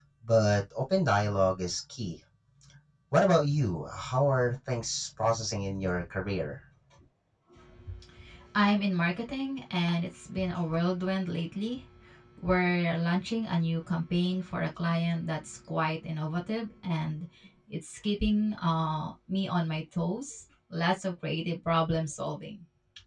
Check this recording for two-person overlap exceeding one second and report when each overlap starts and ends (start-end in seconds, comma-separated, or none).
none